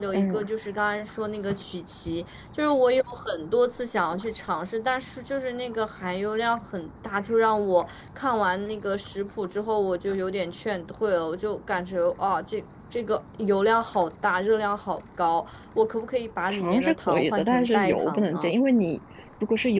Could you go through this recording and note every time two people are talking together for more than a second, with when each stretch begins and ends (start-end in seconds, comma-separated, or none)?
16.5-18.5